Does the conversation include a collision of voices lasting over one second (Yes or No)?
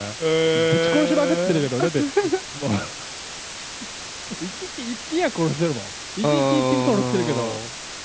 Yes